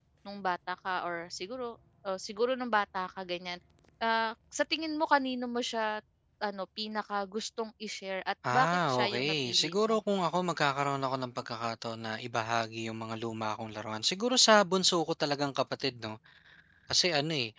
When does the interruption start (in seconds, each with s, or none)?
8.4 s